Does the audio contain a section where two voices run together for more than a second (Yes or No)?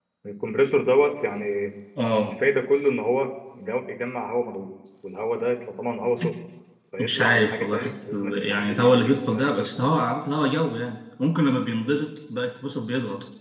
Yes